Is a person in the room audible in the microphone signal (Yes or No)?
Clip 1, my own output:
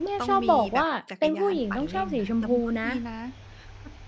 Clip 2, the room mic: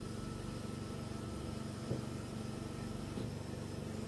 No